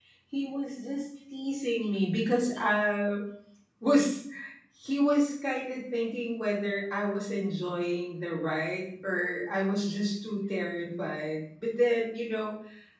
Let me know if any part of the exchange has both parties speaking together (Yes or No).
No